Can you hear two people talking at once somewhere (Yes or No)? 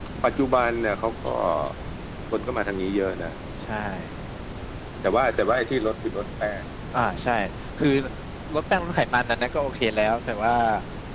No